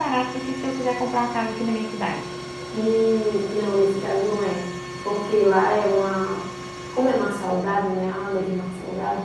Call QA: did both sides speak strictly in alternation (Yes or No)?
Yes